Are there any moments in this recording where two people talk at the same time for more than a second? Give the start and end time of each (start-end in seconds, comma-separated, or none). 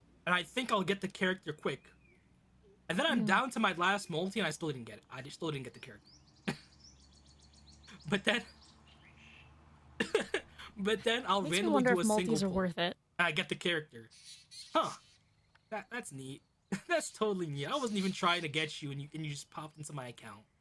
11.4-12.7